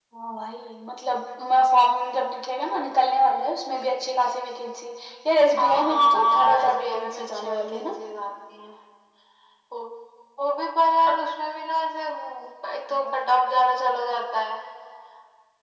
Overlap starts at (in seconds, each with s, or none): 5.6 s